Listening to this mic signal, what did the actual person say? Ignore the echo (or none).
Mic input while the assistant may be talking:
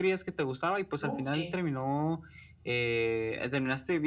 No, sí,